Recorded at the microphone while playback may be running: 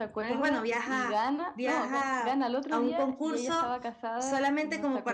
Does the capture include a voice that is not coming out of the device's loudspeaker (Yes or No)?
No